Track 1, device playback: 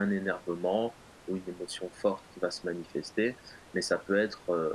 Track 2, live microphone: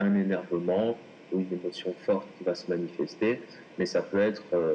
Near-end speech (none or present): none